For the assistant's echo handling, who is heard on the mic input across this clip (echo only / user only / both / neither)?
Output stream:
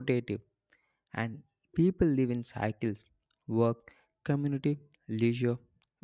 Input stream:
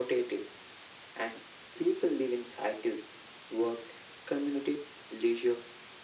echo only